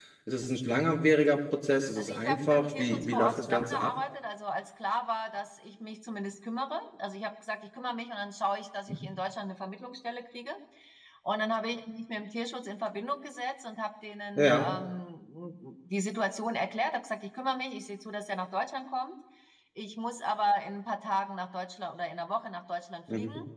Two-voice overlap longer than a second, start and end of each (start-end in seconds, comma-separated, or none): 2.0-3.9